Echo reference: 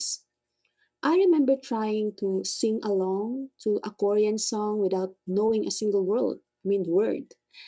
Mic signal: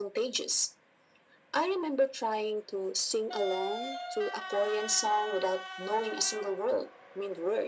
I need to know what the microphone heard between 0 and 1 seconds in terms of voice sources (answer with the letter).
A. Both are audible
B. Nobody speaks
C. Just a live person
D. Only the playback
D